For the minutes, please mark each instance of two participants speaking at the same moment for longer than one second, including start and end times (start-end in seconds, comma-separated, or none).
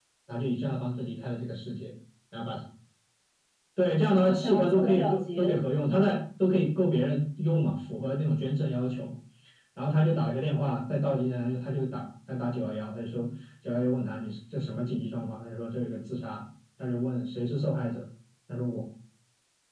4.2-6.2